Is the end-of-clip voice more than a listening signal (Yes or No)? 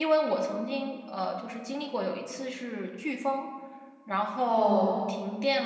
No